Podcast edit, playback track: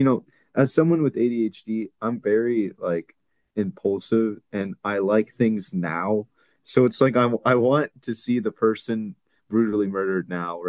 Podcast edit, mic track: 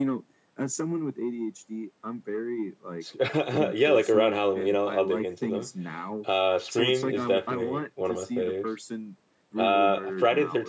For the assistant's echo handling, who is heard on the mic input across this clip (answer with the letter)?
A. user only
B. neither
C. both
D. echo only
C